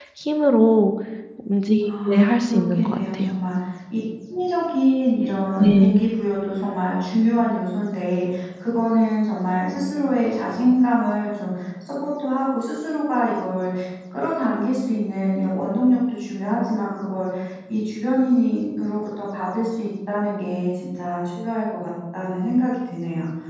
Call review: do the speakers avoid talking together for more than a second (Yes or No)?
No